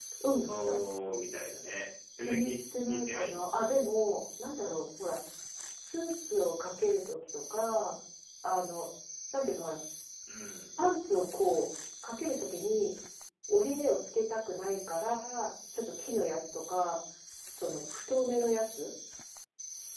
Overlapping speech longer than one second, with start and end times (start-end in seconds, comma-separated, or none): 2.2-3.4